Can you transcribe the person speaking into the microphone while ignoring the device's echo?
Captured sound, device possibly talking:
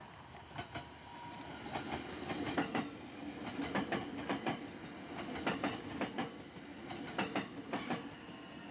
none

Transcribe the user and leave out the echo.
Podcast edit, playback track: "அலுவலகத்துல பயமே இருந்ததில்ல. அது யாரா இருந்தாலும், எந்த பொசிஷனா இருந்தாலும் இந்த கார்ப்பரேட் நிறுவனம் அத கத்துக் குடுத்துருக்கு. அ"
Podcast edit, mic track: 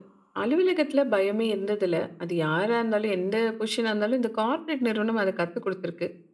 none

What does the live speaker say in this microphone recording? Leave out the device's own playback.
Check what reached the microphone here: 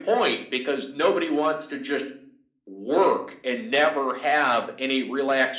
none

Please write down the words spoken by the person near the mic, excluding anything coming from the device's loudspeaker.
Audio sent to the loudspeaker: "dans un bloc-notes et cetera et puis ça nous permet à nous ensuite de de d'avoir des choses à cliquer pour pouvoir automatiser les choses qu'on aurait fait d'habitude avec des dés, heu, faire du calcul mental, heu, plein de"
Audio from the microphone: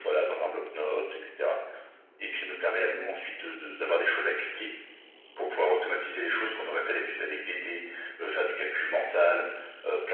none

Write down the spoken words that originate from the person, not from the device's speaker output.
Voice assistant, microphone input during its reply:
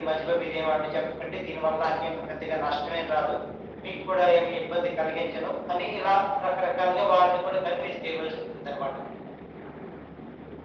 none

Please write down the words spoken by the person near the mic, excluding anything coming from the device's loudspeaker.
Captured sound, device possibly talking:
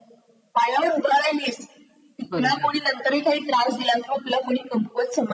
बरोबर.

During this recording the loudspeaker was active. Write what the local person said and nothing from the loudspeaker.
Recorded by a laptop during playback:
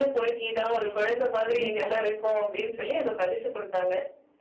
கண்டிப்பா.

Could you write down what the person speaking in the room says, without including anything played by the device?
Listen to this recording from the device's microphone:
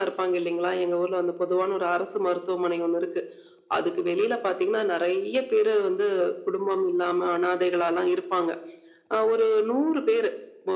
none

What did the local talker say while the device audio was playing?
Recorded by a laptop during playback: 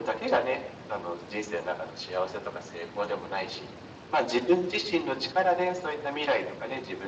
none

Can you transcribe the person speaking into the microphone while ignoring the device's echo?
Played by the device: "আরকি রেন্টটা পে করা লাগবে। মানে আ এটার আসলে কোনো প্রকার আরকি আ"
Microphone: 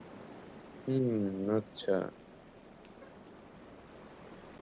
হুম, আচ্ছা।

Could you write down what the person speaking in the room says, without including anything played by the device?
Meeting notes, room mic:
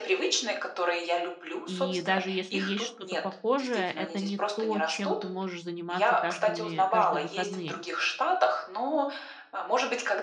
И даже если есть что-то похожее, это не то, чем ты можешь заниматься каждыми каждые выходные.

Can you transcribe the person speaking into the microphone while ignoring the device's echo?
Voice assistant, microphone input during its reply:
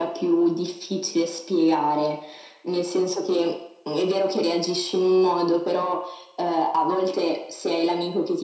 none

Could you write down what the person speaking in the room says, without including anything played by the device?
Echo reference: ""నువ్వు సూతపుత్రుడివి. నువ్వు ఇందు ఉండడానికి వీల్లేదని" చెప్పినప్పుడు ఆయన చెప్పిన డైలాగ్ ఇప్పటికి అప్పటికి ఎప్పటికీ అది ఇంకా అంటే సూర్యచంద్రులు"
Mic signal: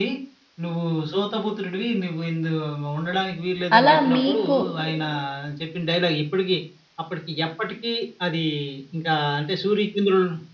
అలా మీకు

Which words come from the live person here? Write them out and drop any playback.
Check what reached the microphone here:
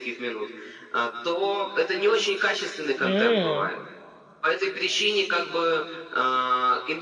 М,

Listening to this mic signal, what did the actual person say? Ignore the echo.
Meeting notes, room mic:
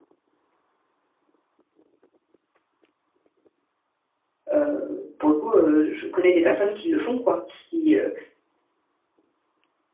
Heu, pour le coup, heu, je je connais des personnes qui le font quoi, qui, heu,

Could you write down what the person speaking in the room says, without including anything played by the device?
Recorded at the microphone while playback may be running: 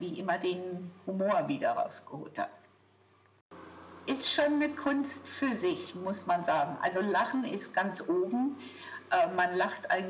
none

